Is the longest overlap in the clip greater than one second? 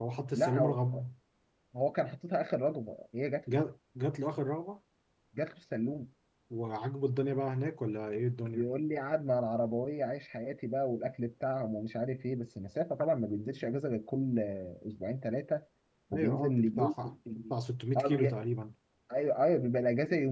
Yes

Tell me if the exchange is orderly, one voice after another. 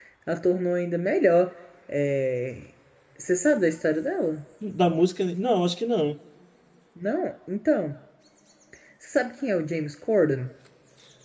Yes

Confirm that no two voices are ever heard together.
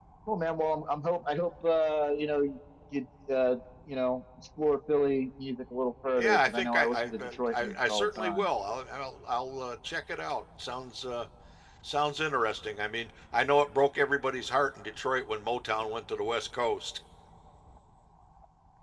No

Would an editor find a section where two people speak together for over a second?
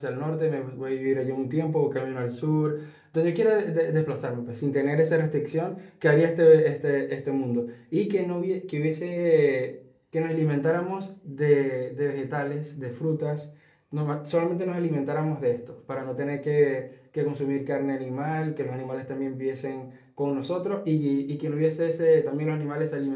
No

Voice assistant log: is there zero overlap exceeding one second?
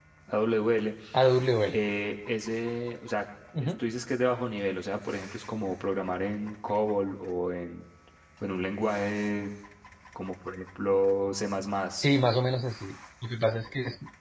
Yes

